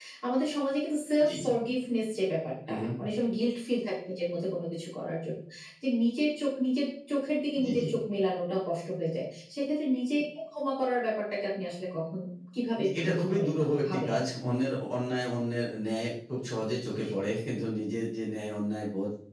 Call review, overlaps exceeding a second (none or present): present